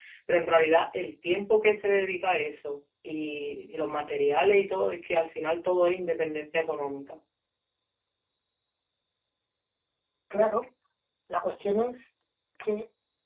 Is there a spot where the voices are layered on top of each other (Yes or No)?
No